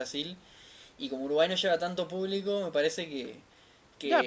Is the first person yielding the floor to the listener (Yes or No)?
Yes